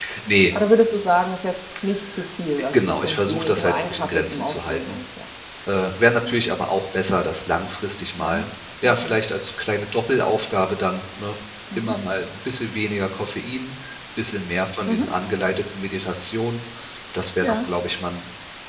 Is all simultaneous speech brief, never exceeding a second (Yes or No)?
No